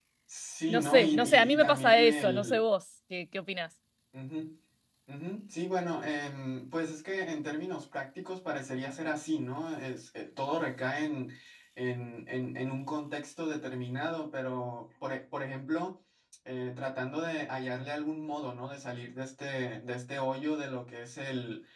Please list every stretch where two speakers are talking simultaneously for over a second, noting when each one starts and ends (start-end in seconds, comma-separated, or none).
0.7-2.6